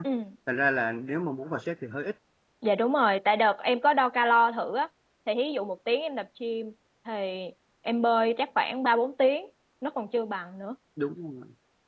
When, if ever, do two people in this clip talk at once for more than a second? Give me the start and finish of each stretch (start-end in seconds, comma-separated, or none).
none